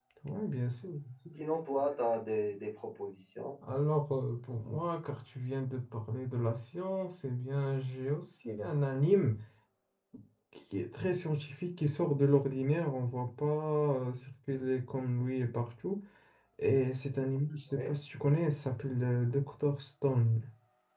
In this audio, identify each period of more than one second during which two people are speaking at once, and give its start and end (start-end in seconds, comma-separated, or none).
none